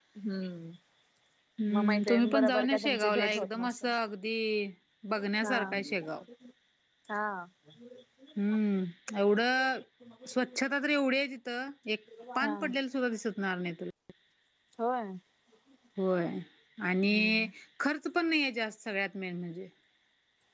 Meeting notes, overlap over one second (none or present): present